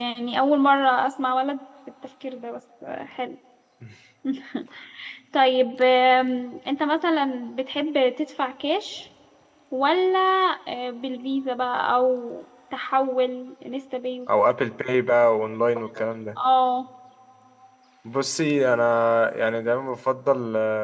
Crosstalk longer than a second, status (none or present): none